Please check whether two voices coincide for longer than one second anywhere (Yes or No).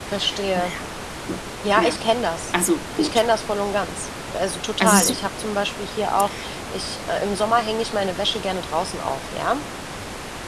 No